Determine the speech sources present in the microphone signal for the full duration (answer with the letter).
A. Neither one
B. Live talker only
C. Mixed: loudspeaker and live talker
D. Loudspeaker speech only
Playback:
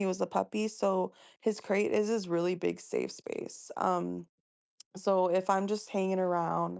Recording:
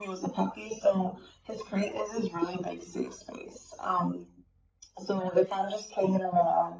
D